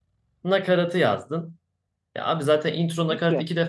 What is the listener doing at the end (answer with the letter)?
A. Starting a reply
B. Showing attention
B